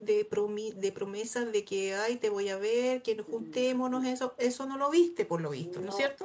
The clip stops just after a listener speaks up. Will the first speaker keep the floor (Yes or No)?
No